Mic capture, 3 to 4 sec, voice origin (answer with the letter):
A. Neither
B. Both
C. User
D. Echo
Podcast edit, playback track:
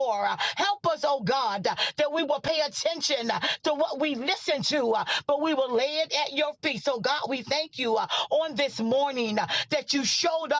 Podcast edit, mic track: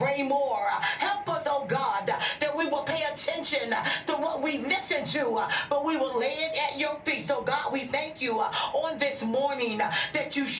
D